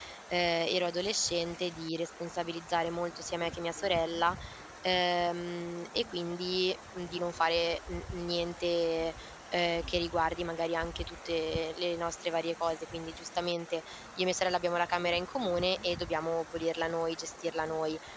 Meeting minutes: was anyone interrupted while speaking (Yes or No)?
No